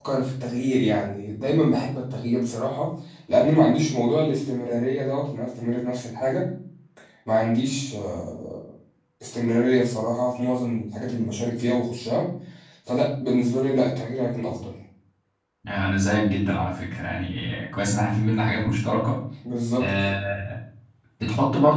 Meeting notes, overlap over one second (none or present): none